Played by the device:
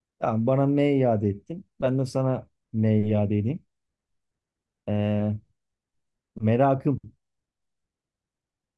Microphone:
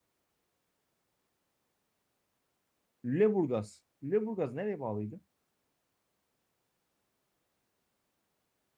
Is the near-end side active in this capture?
Yes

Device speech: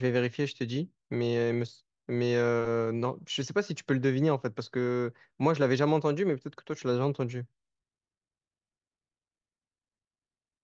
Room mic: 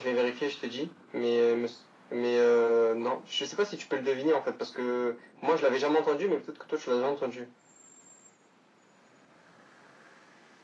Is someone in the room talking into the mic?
No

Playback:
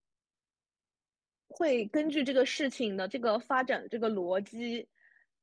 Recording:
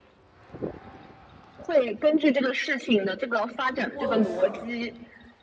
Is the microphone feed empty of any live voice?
No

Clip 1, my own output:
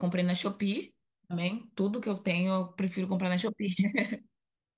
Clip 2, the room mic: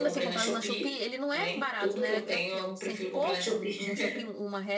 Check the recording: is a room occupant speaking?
Yes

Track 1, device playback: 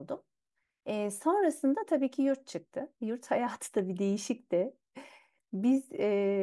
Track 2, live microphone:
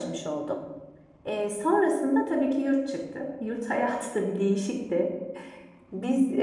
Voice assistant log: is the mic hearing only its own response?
Yes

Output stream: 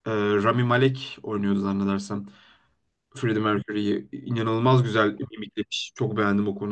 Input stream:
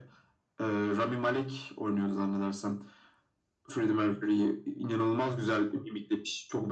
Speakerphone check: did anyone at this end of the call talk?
No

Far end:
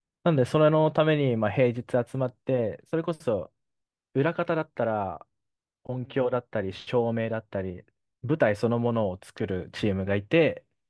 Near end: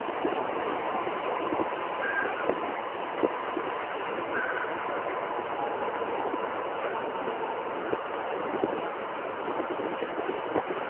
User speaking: No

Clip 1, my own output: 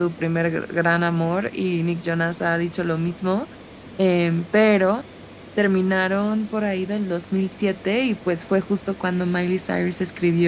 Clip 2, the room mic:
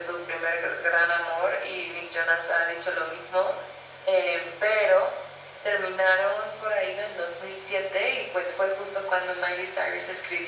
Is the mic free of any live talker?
Yes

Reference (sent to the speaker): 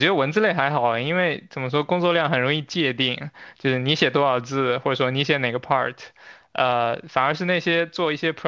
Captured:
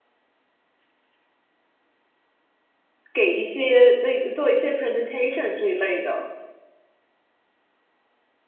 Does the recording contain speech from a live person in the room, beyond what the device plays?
Yes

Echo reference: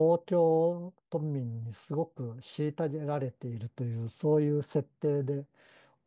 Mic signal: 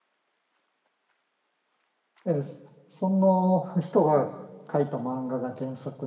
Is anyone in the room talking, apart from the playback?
Yes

